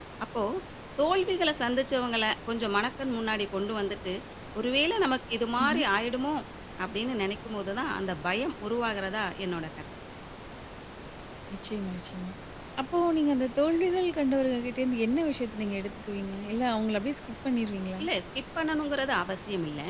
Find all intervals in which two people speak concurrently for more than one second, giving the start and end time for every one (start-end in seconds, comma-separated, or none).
none